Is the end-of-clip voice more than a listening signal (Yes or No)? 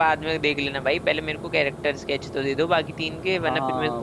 Yes